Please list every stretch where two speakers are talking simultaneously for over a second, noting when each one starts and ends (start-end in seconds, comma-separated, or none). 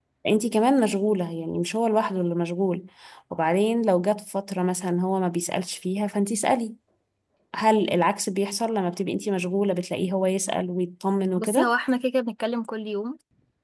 none